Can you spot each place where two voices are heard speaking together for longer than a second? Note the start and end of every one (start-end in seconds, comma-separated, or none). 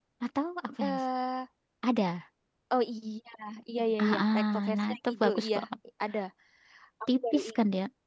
4.0-5.6